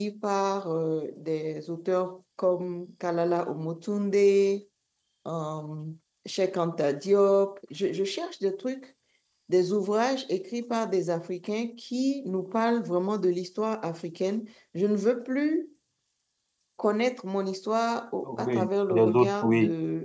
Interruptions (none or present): present